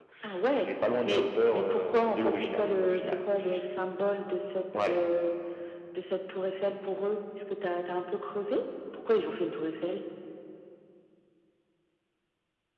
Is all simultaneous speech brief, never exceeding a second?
No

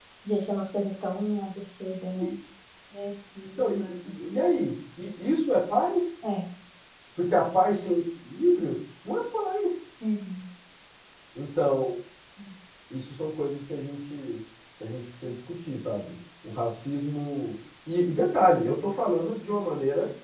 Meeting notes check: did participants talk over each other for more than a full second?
No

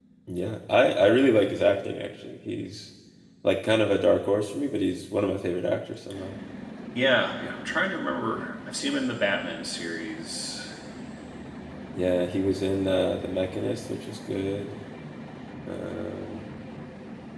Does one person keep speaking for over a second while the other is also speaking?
No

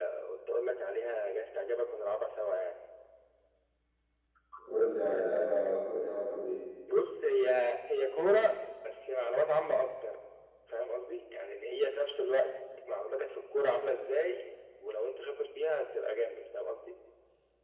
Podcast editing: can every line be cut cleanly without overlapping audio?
Yes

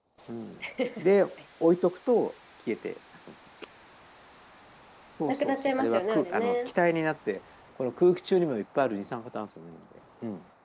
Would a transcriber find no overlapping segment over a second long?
No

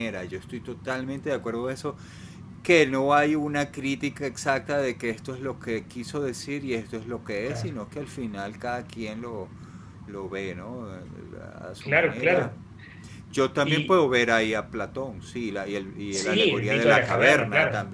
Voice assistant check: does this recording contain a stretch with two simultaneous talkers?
Yes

